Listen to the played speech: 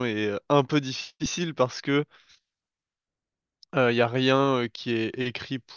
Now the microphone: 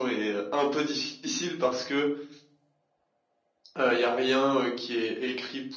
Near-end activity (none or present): none